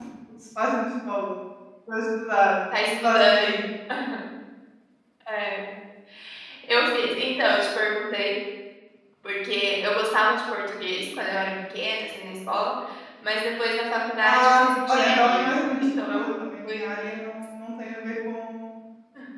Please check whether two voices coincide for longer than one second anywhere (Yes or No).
Yes